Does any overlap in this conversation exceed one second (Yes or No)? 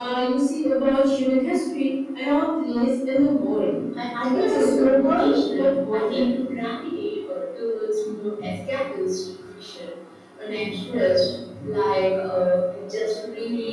Yes